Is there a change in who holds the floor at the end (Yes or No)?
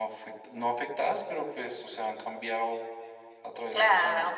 Yes